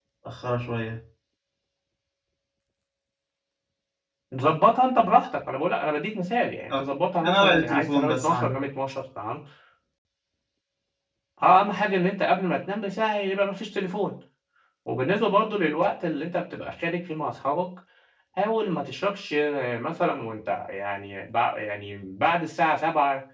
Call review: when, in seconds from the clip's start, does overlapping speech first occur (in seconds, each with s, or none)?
7.2 s